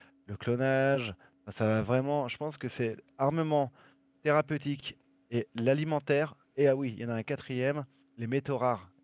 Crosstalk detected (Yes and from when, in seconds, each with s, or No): No